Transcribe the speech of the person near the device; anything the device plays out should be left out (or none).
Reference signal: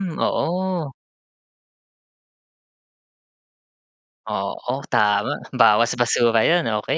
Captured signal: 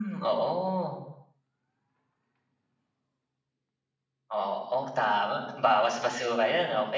none